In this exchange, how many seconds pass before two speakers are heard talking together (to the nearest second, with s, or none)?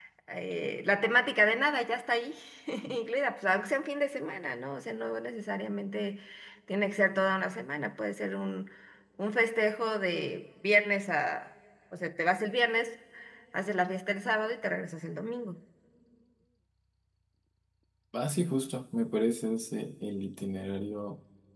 none